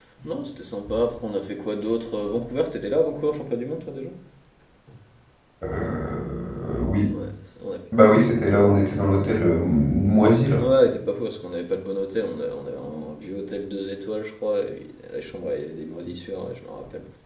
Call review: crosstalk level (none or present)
none